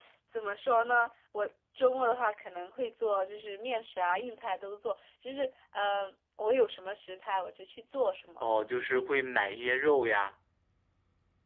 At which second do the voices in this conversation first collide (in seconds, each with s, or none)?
none